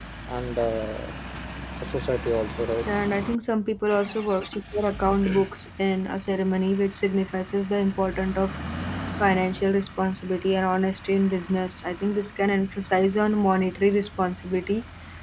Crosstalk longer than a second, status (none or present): none